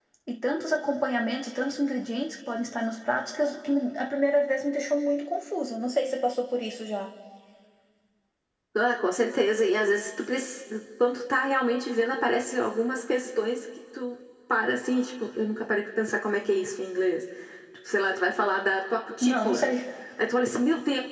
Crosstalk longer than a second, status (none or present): none